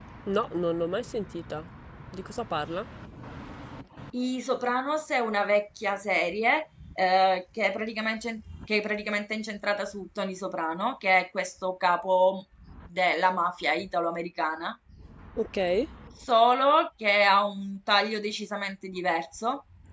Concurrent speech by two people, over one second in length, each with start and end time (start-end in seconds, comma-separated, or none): none